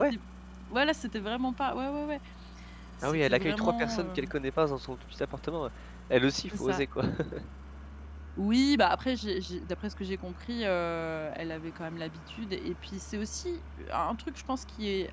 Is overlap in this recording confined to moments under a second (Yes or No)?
No